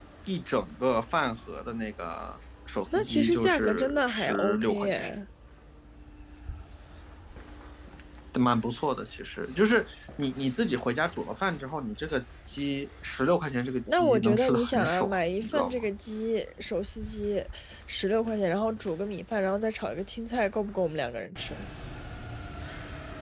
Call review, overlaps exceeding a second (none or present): present